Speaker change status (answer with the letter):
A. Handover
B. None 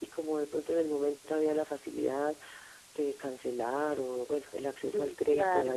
B